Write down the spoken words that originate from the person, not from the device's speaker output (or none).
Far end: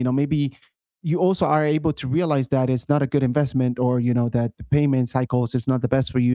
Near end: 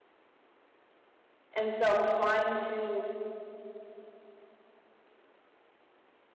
and so I'm trying to